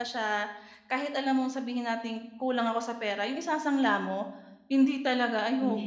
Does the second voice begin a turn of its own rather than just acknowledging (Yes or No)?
No